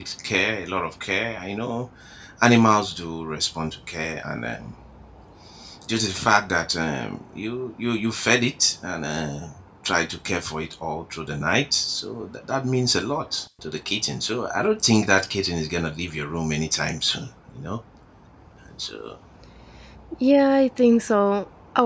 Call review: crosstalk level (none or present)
none